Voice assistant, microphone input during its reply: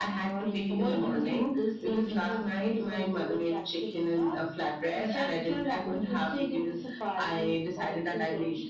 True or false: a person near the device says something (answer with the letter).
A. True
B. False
B